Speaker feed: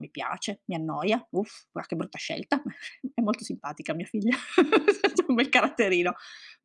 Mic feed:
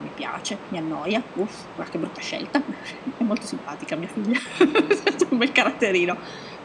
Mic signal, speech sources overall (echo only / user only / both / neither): echo only